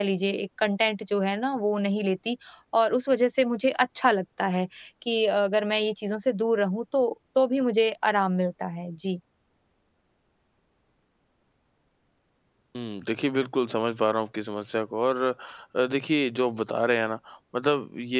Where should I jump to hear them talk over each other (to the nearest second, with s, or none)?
none